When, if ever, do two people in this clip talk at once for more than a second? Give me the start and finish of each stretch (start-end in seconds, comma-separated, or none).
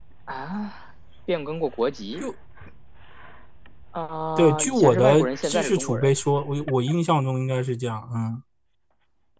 4.4-6.1